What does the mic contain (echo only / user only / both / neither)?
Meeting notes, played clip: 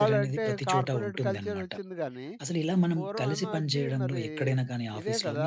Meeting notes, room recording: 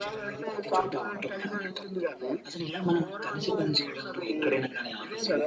echo only